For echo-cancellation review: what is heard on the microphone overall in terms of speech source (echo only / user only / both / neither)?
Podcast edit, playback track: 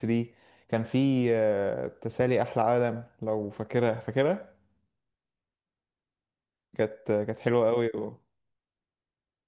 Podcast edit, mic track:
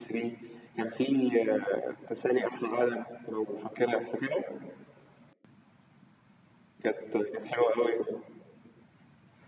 echo only